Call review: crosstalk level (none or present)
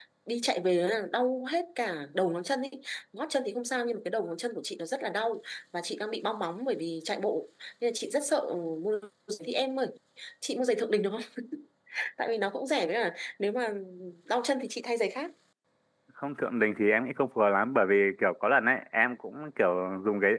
none